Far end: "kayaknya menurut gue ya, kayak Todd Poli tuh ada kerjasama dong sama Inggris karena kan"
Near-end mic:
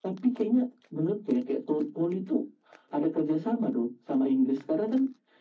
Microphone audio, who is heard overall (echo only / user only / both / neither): echo only